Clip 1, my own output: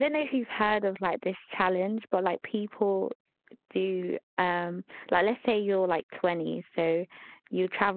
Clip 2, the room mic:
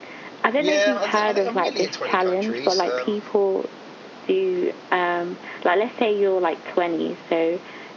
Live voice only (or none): Yeah, I, th- I think I've nearly hit 20 countries. Um,